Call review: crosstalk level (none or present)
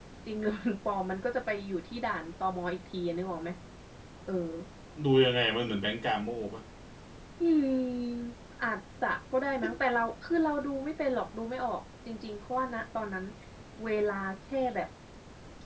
none